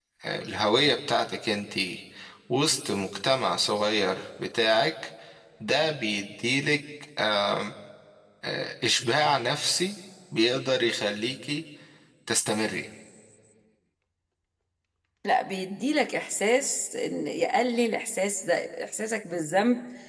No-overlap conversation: Yes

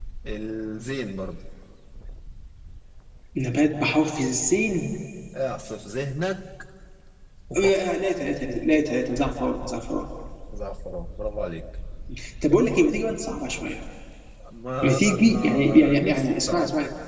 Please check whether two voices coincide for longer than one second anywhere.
Yes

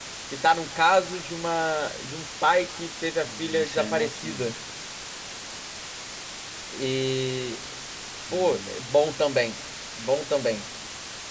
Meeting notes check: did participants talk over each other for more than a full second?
Yes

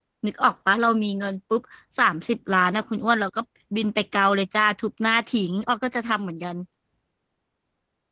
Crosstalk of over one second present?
No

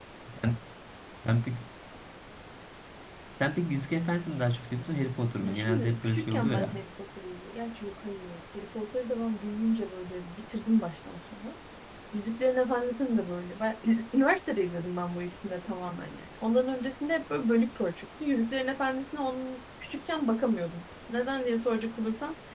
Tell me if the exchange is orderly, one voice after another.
No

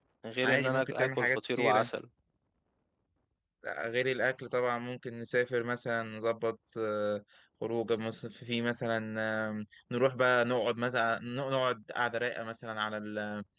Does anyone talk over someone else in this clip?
Yes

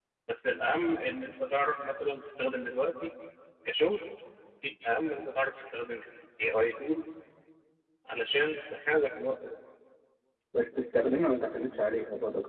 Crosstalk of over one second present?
No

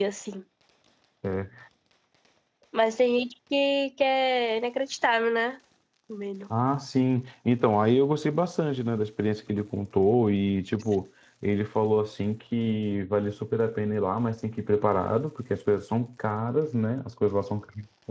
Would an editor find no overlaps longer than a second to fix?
Yes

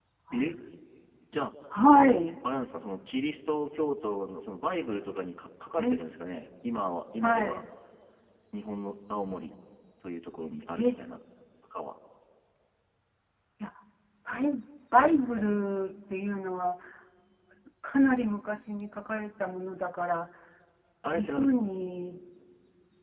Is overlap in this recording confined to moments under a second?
Yes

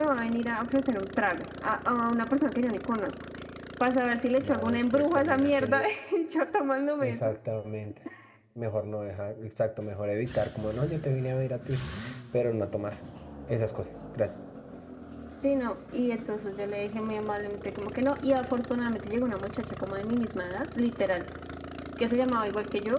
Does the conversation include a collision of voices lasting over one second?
Yes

